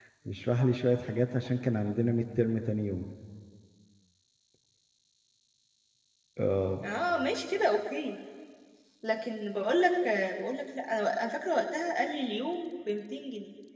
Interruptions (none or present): none